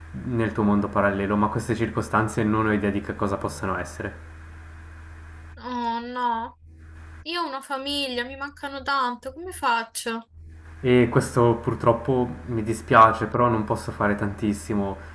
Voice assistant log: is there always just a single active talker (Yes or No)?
Yes